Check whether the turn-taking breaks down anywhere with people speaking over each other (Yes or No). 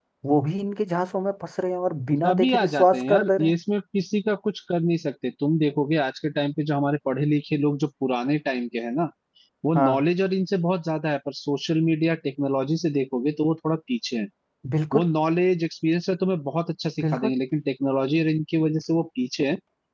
Yes